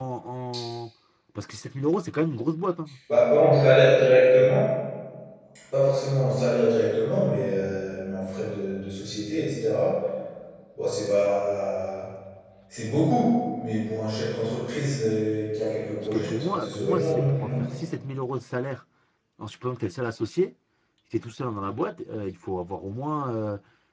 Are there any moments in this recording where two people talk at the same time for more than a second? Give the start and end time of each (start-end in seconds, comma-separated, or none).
16.0-17.6